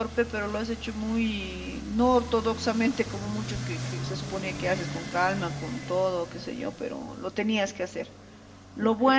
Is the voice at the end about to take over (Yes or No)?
No